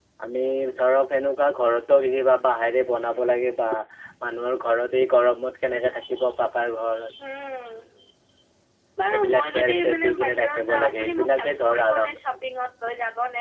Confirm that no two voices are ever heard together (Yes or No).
No